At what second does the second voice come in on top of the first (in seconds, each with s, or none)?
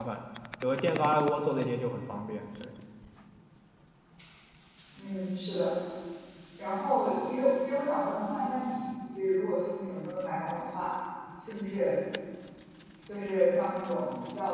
none